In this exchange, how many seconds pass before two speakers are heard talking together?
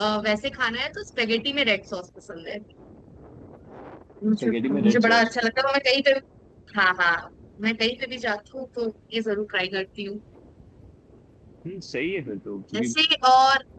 4.4 s

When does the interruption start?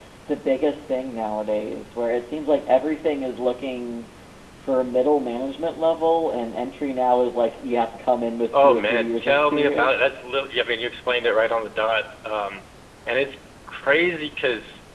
8.5 s

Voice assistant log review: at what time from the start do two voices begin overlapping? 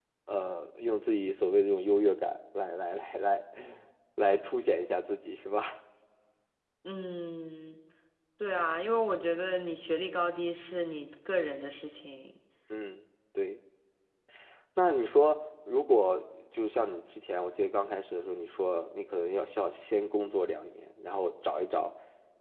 none

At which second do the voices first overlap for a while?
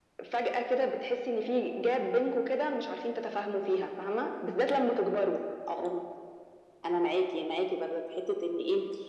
none

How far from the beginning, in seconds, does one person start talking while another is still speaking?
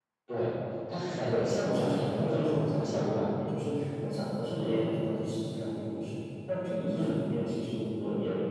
1.3 s

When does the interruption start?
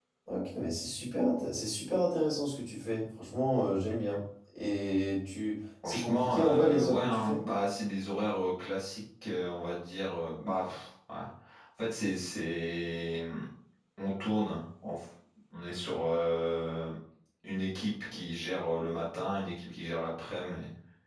5.8 s

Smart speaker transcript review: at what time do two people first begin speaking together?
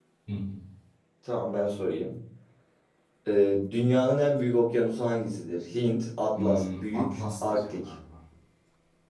6.3 s

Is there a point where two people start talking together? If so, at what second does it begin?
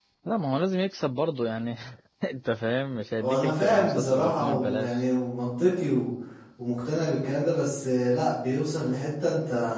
3.2 s

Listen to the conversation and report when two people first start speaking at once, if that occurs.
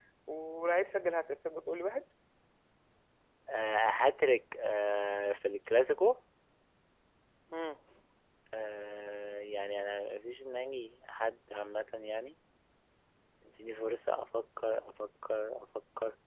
none

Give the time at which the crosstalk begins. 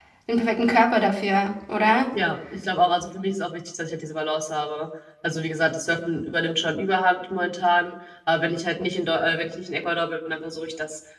none

